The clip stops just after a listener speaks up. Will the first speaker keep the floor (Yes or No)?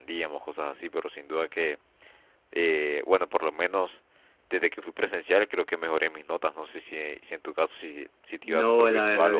No